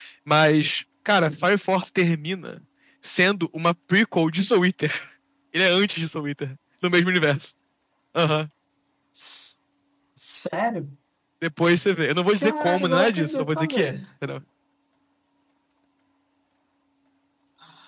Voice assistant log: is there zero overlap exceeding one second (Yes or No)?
No